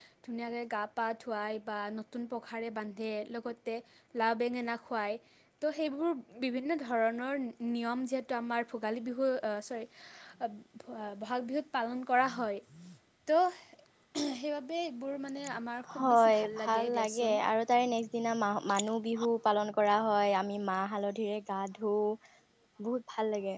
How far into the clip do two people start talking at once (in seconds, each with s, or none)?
16.0 s